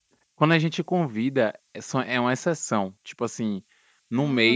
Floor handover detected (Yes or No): No